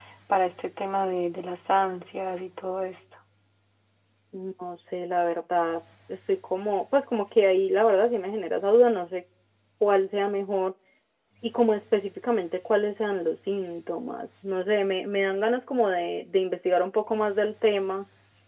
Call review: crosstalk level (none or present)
none